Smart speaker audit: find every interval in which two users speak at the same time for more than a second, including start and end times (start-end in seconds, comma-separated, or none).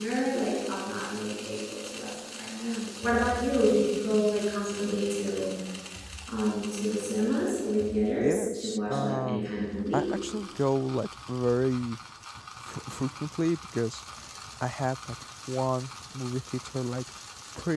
8.2-9.5